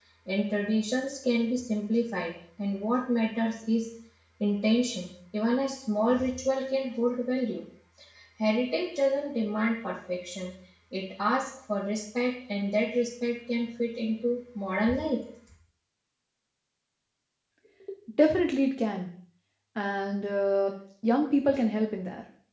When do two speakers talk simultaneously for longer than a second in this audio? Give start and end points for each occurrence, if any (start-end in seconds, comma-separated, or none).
none